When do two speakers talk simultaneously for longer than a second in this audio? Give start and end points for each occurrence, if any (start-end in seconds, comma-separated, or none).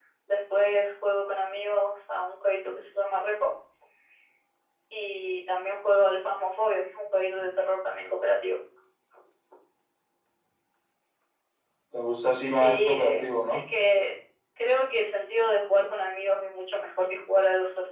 12.4-13.6